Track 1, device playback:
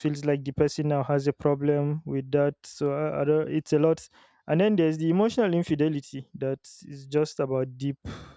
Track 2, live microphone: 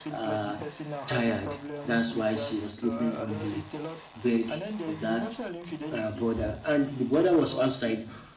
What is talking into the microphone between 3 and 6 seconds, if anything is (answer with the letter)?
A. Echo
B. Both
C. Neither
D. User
B